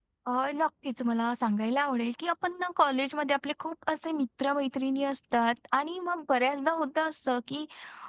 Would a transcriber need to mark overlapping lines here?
No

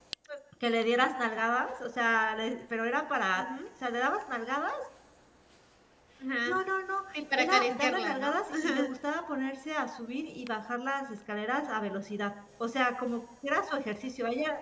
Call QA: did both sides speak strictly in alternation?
No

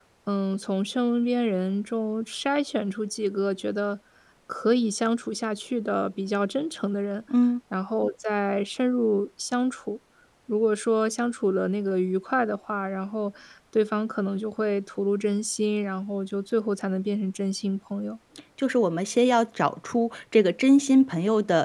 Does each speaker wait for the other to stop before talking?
Yes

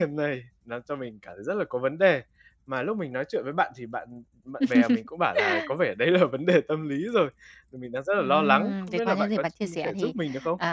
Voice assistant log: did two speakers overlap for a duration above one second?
Yes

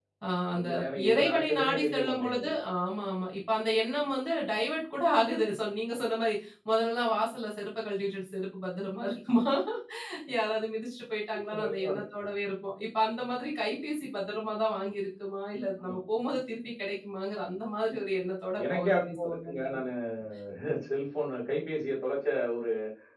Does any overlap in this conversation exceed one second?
Yes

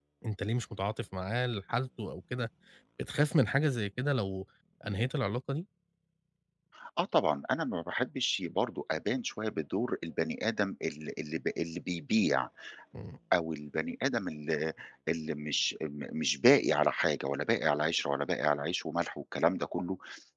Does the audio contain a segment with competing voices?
No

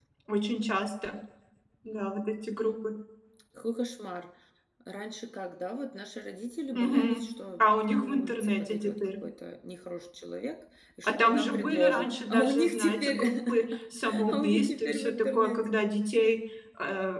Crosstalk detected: Yes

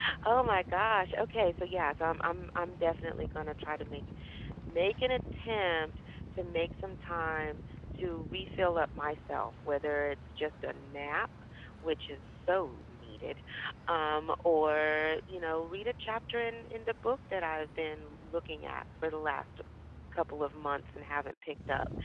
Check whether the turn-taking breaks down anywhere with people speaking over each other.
No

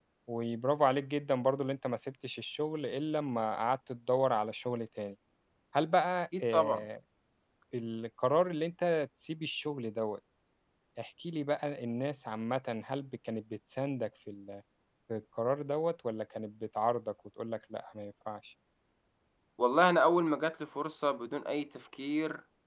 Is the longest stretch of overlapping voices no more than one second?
Yes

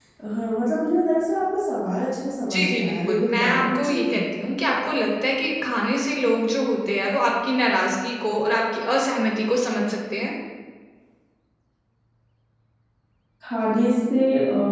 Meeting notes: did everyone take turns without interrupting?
No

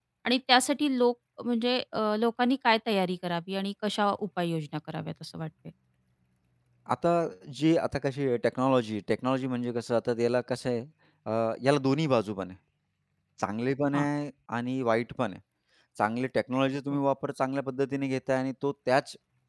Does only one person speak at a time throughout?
Yes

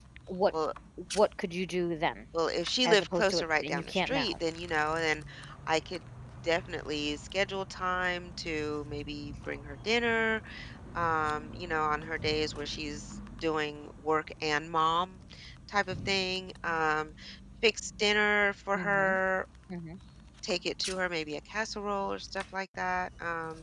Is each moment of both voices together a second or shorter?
No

